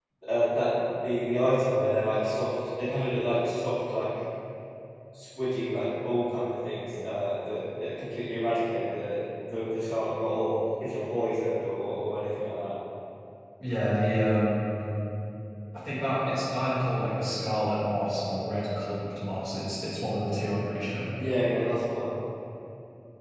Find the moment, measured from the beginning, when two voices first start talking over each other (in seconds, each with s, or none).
none